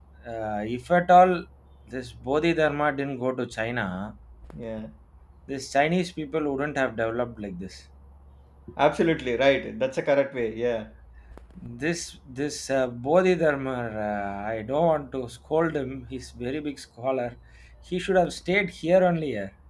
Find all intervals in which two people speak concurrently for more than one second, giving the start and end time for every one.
none

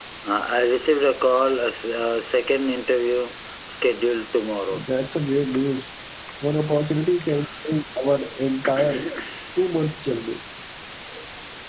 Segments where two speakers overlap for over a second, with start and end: none

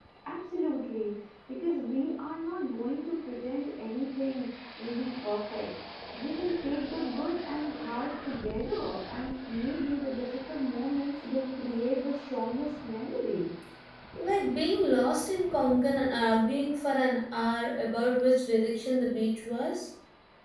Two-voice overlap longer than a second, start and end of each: none

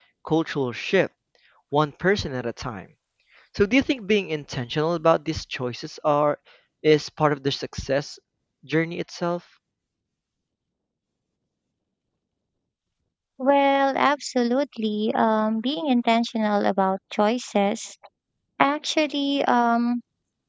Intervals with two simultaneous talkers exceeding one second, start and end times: none

